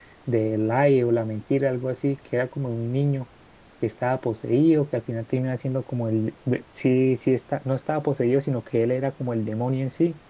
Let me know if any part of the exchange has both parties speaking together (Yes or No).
No